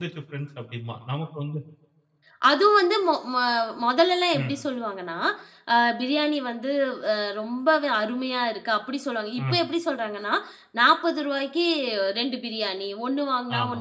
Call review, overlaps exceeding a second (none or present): none